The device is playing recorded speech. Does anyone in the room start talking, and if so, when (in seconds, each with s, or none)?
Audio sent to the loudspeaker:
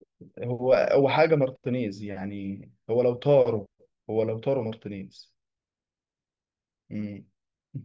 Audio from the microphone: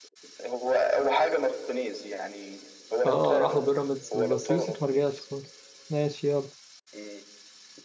3.0 s